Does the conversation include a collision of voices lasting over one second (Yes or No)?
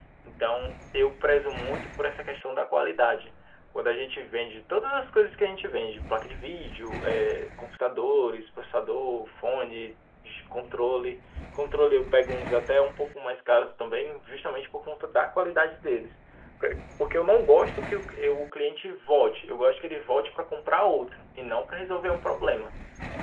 No